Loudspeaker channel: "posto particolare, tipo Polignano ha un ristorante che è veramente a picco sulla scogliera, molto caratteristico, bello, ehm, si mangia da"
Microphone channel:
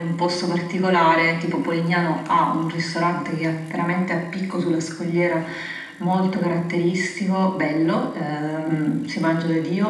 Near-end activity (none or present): none